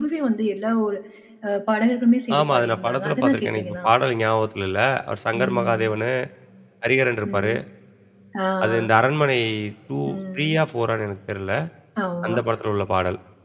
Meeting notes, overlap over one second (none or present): present